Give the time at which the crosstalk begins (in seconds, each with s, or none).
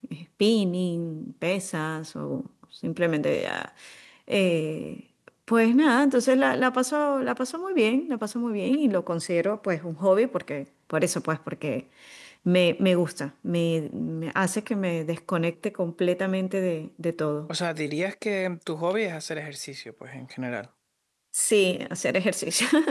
none